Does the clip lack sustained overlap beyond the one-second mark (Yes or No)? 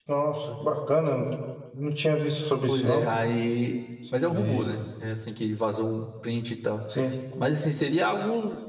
Yes